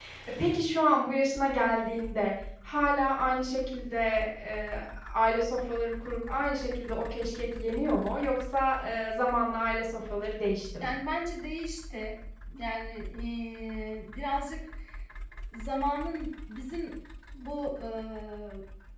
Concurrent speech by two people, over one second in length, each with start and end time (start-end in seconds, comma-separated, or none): none